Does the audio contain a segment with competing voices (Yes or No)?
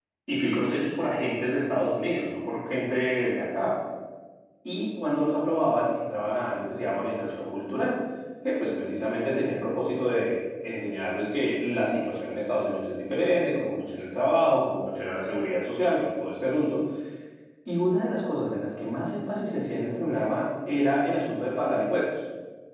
No